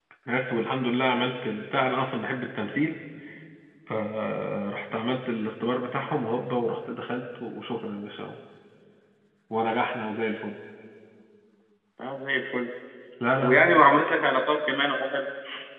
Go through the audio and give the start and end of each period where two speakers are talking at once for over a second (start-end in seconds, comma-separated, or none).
none